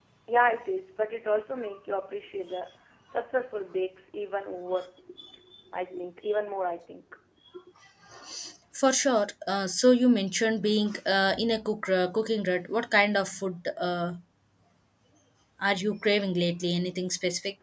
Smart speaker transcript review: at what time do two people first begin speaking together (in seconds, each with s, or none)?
none